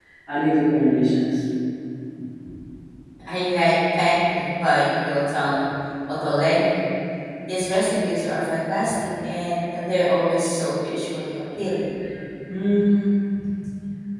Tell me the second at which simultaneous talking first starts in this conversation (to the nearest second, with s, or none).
none